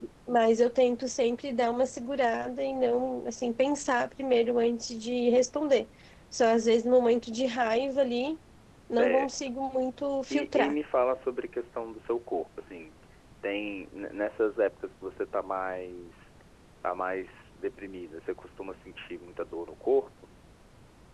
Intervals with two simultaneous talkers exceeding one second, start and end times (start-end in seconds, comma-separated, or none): none